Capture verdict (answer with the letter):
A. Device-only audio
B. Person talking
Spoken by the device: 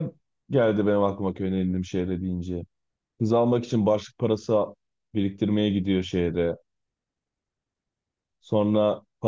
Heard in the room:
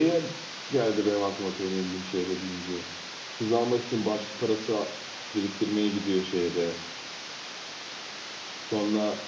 A